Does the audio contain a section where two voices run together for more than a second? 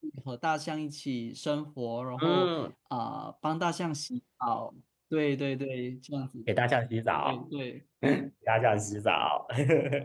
No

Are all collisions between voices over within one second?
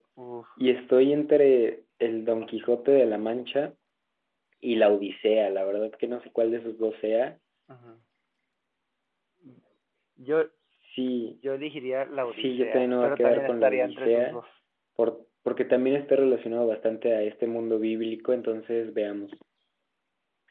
No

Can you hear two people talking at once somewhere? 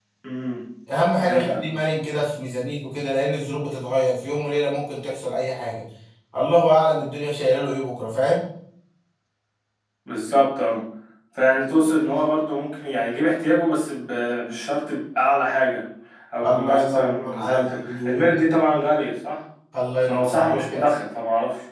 Yes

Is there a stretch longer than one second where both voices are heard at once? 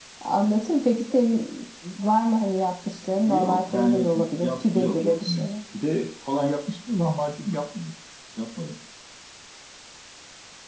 Yes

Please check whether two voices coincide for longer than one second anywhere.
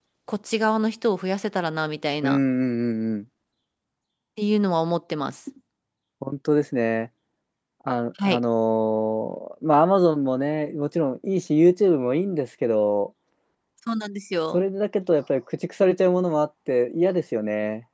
No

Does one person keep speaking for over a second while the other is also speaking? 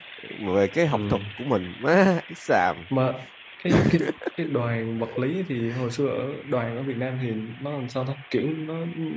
No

